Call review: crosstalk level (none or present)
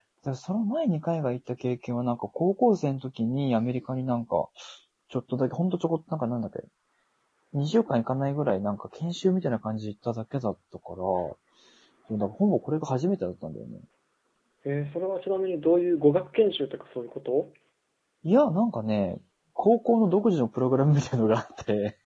none